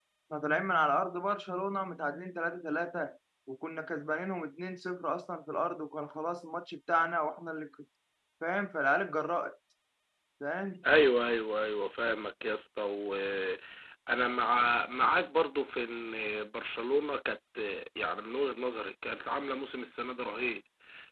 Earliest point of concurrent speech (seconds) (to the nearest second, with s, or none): none